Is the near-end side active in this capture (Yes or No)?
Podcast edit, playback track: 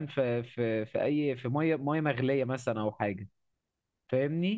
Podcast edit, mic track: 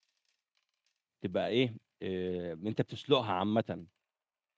Yes